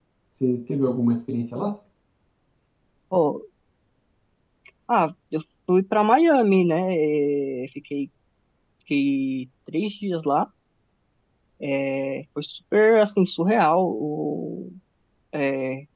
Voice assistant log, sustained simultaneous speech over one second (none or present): none